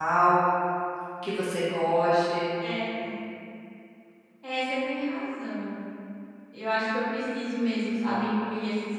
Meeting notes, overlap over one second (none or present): none